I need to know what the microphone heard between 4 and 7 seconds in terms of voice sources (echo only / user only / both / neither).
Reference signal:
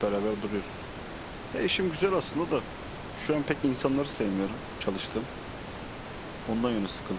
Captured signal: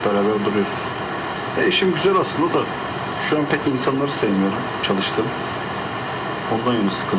echo only